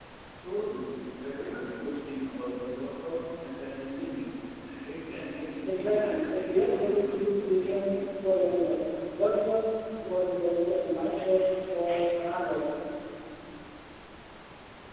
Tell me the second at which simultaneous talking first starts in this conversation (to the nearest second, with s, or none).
6 s